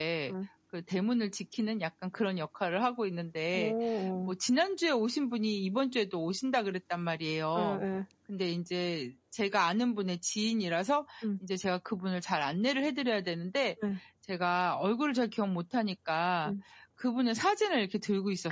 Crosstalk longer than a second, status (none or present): none